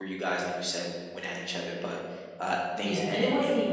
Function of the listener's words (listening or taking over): taking over